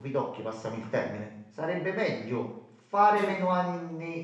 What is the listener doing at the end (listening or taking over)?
listening